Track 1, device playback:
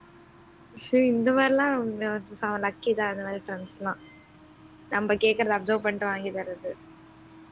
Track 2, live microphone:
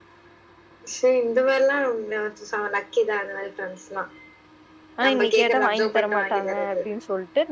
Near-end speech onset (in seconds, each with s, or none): 5.0 s